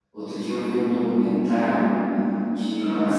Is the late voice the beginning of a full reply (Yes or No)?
No